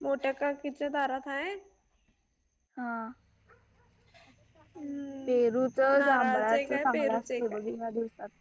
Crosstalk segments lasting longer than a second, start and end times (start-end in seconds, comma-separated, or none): 6.0-7.6